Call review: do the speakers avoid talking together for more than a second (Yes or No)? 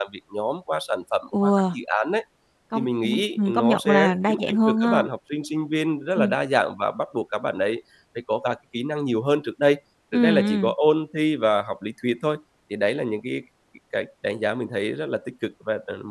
No